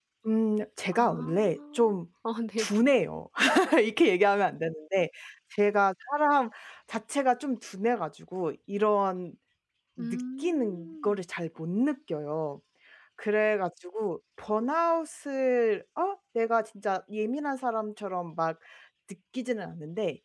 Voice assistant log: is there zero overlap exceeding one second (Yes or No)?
No